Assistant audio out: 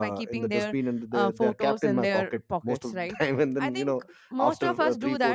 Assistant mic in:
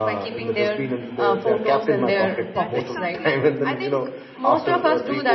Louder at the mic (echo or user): echo